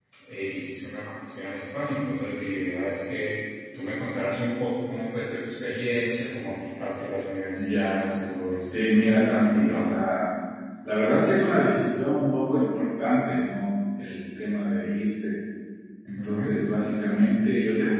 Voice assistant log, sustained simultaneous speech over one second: present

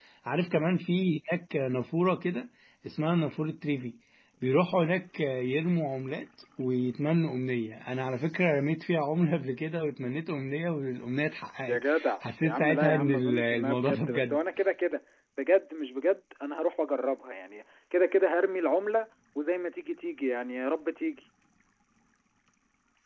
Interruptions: present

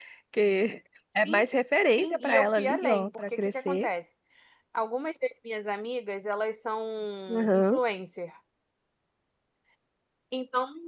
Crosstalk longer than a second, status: present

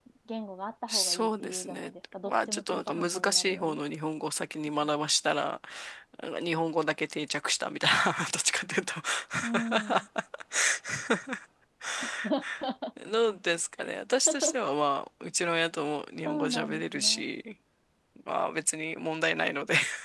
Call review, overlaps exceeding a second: present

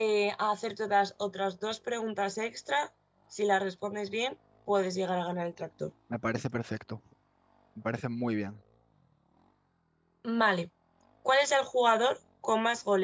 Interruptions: none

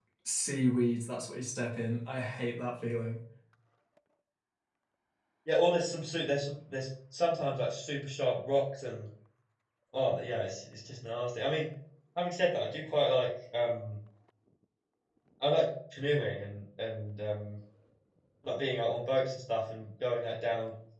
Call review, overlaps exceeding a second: none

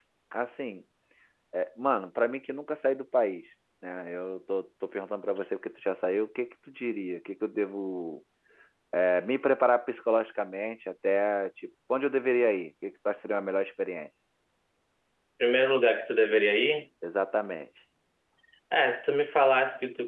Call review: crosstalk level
none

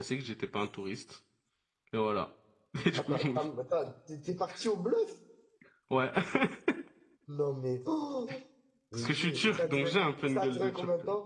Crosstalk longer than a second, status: present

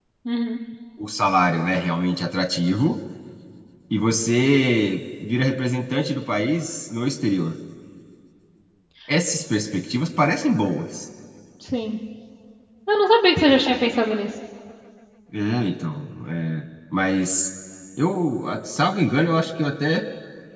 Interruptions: none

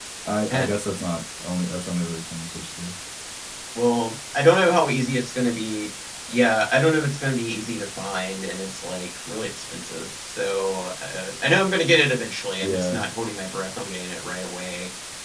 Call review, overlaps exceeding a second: none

